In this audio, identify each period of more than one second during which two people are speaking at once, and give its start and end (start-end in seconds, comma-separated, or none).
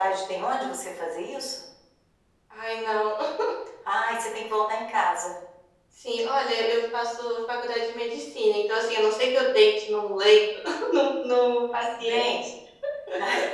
none